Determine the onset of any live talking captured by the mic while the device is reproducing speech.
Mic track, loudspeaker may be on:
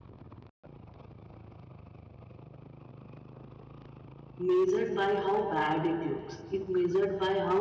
4.4 s

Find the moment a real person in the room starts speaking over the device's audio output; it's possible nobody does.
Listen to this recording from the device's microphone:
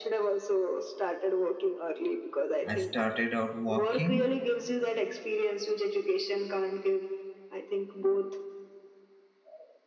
2.6 s

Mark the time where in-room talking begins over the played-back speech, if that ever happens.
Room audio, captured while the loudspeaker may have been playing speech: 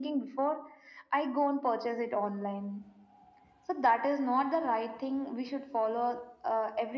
none

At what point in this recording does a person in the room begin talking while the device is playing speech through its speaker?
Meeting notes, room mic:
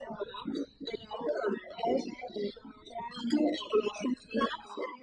none

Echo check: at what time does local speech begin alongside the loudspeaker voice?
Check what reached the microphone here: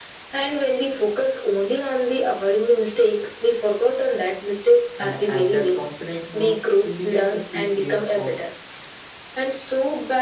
5.0 s

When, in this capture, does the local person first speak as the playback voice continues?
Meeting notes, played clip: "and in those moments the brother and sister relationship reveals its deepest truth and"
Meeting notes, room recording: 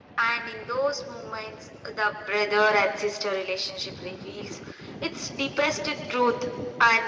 none

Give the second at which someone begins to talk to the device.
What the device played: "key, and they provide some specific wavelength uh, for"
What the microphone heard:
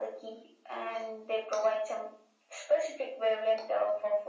none

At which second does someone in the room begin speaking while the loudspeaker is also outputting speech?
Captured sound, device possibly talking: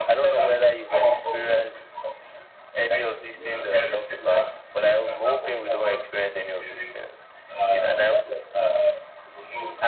3.4 s

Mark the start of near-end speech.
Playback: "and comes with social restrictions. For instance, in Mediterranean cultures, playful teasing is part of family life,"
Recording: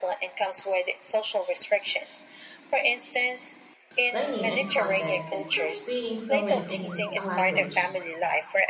4.1 s

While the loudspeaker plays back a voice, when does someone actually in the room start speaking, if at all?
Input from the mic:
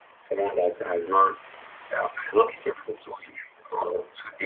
none

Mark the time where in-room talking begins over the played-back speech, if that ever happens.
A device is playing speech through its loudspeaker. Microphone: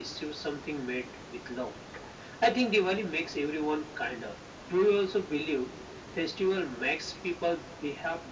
none

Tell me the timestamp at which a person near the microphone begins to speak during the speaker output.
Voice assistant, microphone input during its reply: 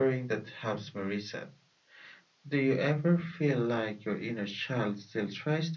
none

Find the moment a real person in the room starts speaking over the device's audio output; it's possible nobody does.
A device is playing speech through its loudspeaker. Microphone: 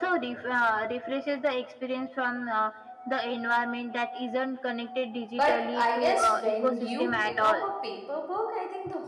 5.3 s

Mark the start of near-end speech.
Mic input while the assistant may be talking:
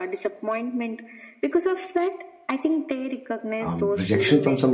3.6 s

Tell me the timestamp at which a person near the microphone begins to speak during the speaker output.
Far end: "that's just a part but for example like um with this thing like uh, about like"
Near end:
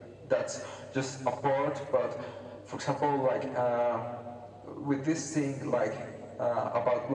none

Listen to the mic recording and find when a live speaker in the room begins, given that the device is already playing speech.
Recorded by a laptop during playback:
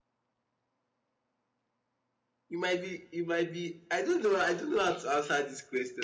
2.5 s

